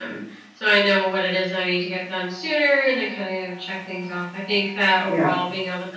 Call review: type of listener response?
listening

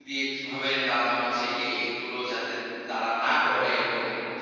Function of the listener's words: listening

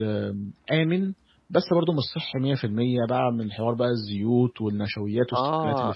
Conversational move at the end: taking over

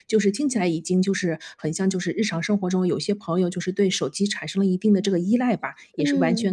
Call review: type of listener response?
listening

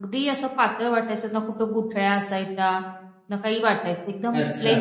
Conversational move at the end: listening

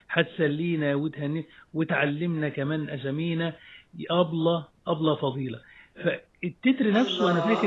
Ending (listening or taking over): listening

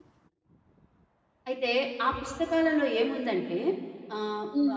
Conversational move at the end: taking over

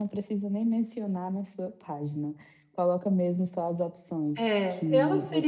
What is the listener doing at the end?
taking over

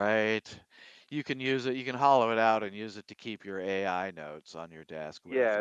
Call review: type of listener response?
taking over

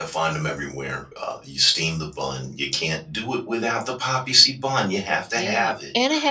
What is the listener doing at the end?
taking over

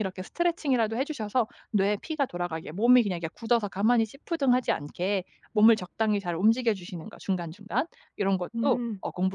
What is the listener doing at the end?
listening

